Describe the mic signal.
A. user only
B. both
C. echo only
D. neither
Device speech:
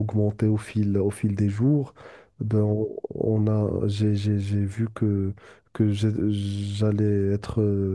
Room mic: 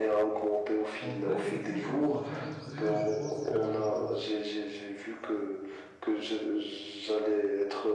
B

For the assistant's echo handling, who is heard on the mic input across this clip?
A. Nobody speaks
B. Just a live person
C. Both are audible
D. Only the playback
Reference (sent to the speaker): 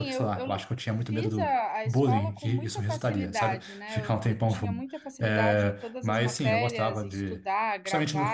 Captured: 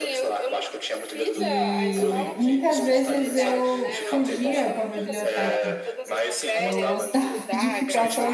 C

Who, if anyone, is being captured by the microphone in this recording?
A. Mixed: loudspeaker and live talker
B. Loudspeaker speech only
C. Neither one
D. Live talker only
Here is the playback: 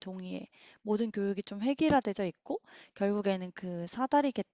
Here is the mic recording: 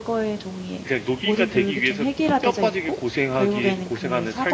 A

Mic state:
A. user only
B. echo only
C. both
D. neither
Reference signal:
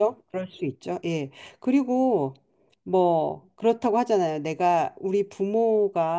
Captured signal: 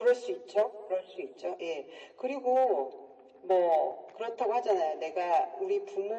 B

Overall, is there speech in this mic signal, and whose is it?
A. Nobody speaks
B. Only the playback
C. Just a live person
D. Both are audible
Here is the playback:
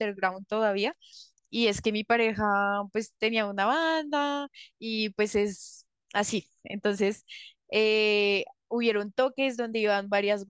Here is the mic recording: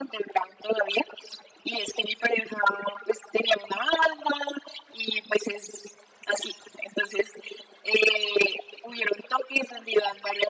B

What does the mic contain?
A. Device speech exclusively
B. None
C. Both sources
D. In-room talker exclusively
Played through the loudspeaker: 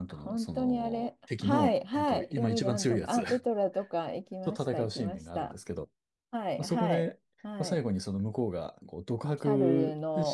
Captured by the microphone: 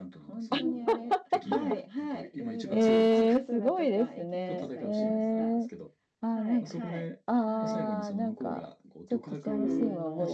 C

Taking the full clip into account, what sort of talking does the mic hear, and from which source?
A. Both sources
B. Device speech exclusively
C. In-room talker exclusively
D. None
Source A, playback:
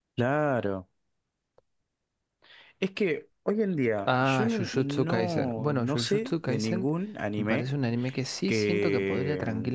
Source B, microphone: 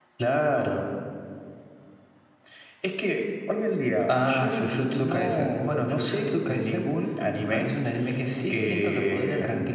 B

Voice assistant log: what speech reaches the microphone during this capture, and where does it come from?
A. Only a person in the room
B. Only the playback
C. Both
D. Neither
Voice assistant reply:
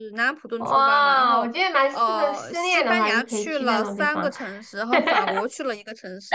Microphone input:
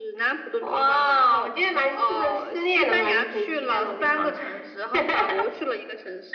B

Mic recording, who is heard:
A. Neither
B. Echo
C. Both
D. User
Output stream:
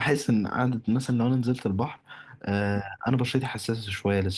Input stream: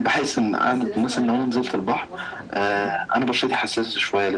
C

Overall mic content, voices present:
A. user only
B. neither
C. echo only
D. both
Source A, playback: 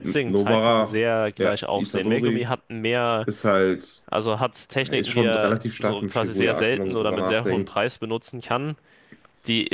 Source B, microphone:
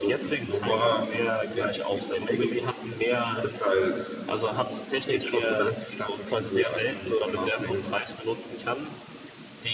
C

